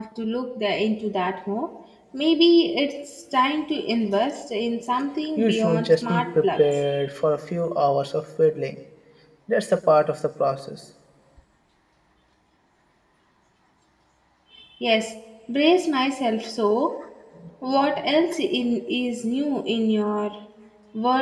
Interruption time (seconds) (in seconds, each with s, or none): 5.4 s